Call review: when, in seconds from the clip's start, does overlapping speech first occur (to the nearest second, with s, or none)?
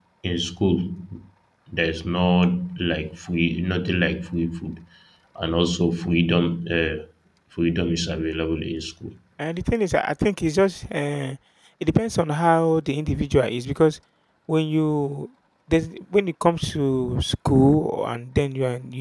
none